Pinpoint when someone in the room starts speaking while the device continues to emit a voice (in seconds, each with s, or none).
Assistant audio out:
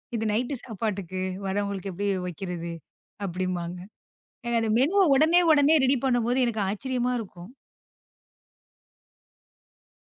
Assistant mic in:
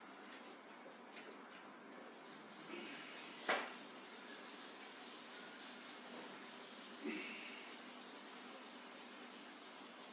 none